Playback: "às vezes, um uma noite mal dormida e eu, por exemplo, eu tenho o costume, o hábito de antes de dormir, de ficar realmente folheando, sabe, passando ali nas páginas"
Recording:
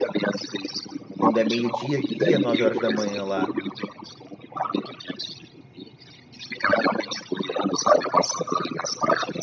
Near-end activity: present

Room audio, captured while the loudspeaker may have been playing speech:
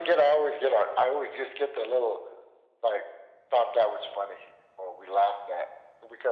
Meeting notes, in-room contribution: none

